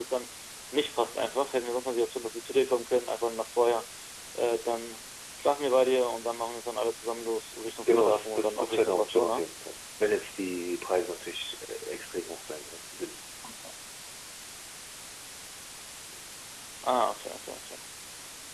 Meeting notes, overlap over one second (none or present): present